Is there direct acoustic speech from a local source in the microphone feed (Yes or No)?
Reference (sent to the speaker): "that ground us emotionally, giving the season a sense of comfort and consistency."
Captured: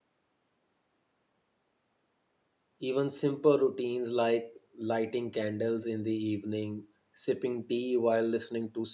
Yes